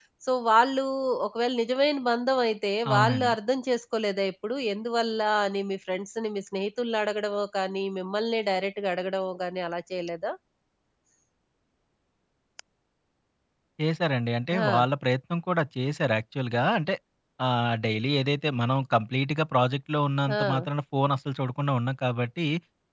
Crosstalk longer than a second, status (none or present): none